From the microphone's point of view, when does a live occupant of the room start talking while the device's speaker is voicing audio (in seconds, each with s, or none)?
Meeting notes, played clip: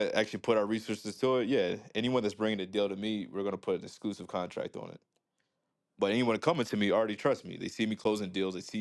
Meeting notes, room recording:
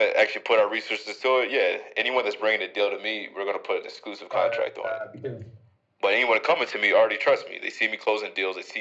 4.3 s